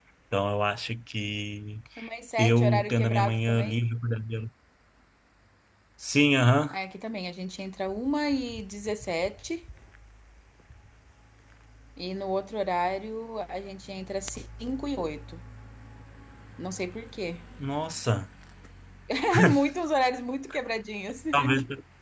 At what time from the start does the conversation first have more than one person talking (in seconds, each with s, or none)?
2.4 s